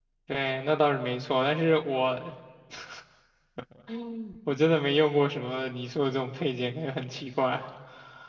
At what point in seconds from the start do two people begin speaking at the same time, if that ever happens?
none

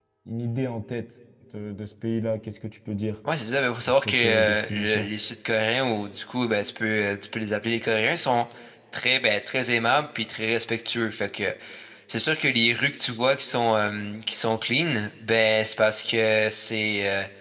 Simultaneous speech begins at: 3.9 s

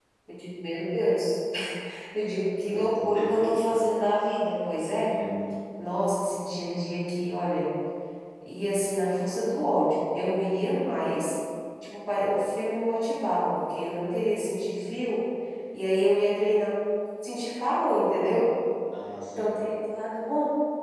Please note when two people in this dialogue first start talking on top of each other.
2.6 s

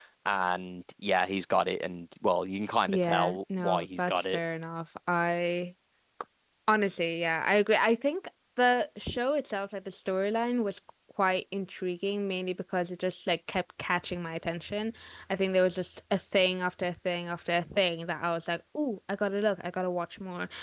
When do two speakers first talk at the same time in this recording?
2.9 s

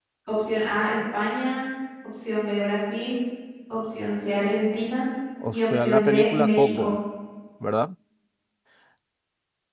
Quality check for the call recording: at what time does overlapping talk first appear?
5.5 s

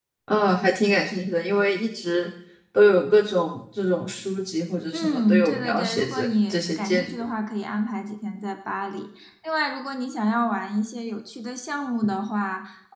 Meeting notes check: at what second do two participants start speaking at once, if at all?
4.9 s

